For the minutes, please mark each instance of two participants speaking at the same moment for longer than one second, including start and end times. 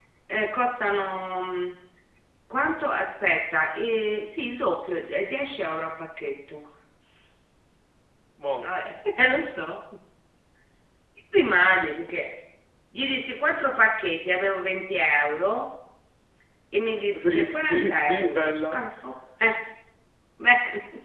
17.1-18.8

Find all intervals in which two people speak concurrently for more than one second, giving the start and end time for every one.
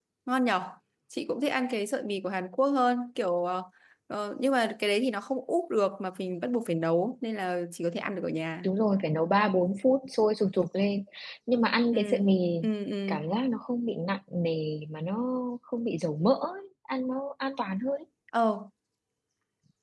none

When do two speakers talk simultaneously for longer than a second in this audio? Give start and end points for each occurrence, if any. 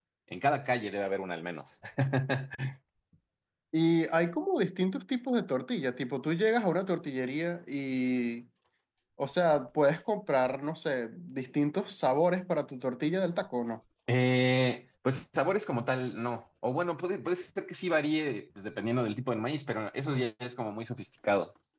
none

